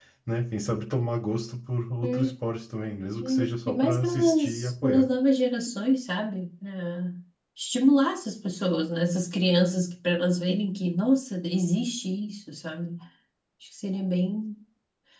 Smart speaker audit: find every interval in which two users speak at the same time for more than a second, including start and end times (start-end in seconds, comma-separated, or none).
3.2-5.1